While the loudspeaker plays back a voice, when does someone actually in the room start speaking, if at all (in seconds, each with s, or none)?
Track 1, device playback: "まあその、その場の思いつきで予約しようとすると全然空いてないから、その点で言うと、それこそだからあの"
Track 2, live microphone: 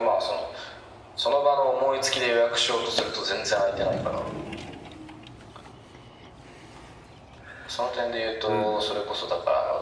8.4 s